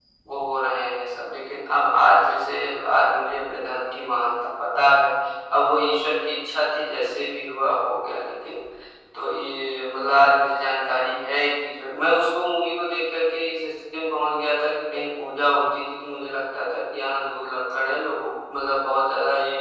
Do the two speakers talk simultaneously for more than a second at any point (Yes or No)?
No